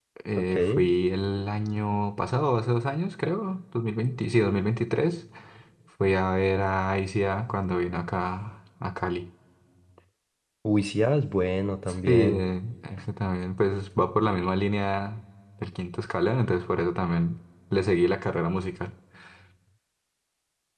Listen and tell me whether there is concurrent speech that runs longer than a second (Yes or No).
No